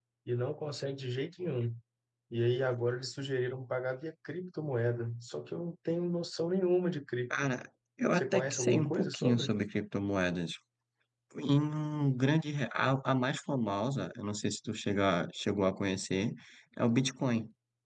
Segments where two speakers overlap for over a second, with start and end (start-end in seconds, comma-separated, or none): 8.1-9.5